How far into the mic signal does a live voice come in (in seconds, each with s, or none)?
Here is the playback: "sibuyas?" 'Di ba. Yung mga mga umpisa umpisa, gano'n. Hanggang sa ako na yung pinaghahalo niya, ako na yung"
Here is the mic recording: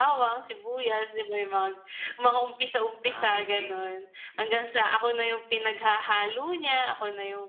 3.0 s